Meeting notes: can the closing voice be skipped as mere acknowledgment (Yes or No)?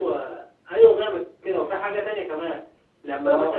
Yes